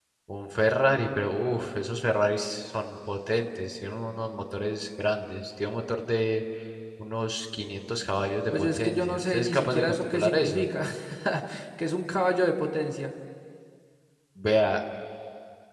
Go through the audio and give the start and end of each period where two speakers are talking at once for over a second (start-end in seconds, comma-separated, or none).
8.5-10.7